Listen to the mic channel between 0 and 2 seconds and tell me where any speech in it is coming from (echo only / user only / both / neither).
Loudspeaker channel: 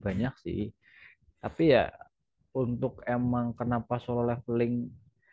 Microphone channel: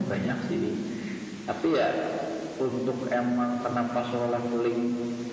echo only